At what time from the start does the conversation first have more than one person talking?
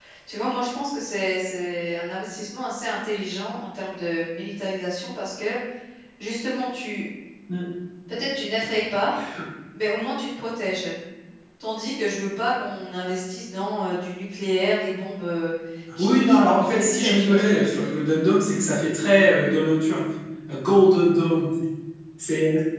16 s

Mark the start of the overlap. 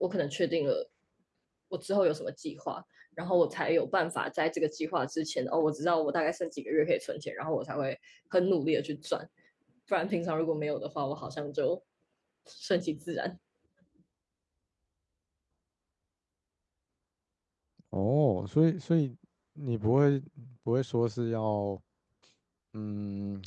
none

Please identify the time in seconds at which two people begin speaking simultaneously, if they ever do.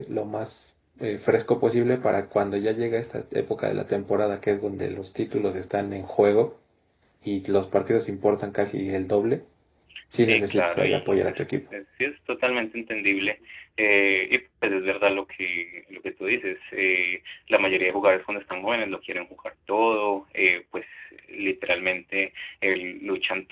10 s

